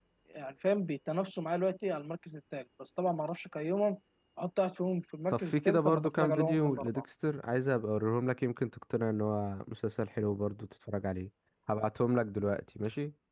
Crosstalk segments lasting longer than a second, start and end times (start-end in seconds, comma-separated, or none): 5.3-7.0